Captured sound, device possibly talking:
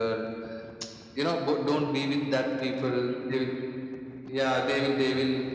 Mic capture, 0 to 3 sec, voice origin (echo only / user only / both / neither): echo only